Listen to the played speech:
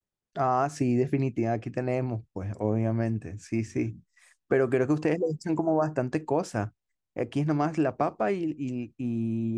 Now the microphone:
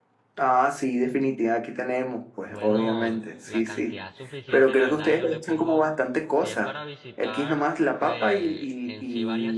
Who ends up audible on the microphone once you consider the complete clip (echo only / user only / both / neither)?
both